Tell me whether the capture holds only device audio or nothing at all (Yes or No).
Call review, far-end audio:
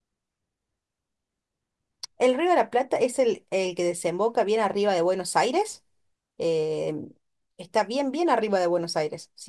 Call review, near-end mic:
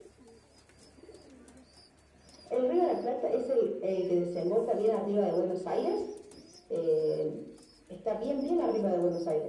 Yes